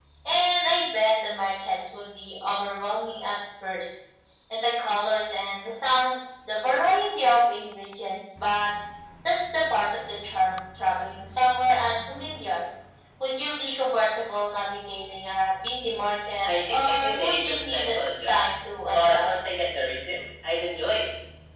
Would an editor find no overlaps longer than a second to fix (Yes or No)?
No